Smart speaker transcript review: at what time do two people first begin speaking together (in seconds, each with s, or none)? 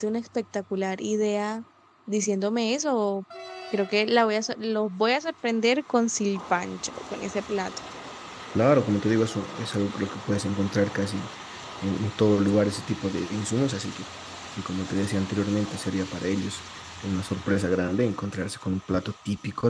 none